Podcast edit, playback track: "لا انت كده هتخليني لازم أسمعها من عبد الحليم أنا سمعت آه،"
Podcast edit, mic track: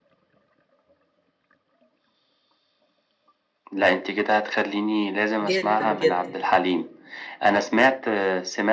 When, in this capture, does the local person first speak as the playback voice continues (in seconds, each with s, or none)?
5.4 s